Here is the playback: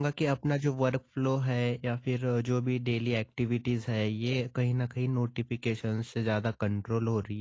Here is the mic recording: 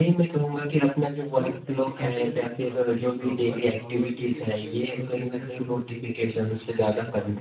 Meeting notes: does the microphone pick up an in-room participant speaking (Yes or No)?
Yes